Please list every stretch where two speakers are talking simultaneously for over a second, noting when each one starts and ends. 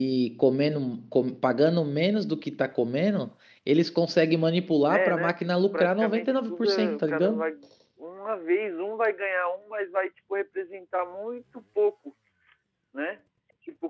4.9-7.4

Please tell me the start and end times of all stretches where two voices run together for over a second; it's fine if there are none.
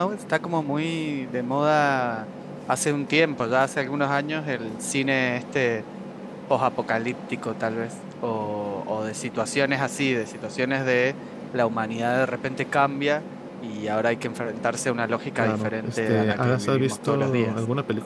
15.4-17.6

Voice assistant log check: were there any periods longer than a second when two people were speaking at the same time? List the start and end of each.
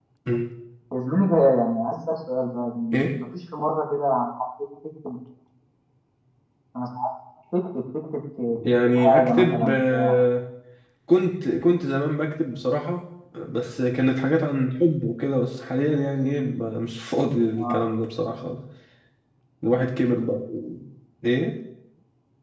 8.8-10.2

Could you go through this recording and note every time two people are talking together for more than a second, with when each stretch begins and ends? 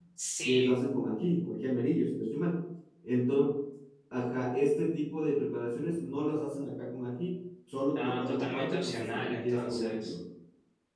8.0-10.1

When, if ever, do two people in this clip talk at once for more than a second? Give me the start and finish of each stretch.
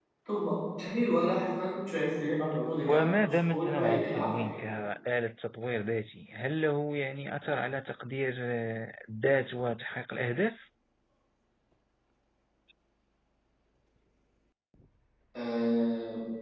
2.9-4.4

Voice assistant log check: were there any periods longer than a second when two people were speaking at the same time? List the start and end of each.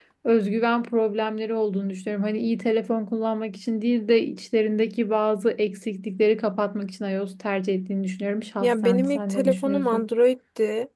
8.6-10.1

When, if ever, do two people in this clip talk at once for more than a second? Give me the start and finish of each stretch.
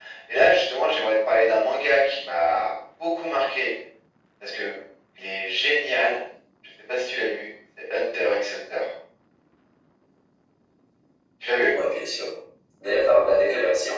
none

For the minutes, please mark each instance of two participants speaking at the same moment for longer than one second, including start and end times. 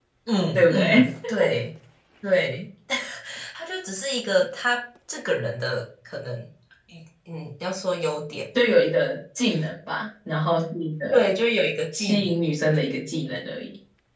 none

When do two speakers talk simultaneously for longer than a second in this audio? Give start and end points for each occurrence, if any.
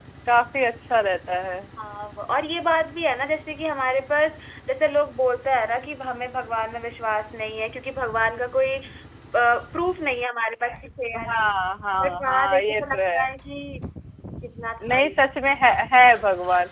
12.0-13.2

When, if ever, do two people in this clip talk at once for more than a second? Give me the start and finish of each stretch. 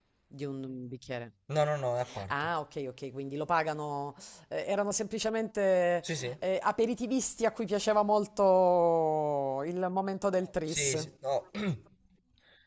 none

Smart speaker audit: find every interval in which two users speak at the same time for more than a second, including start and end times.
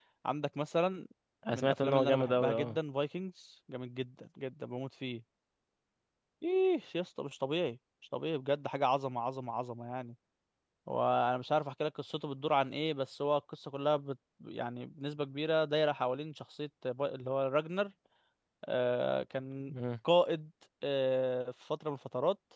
1.5-2.8

